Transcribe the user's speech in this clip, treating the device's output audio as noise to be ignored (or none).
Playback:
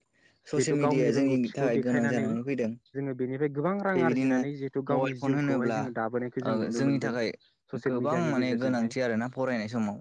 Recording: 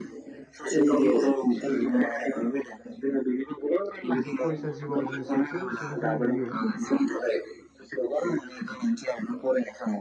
जिहेथु फरायसा जिउआव जोङो साफ्रोमबो सुबुंखौनो नुयो